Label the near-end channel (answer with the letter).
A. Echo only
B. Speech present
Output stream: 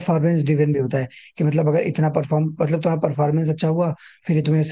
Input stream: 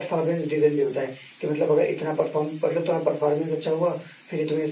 A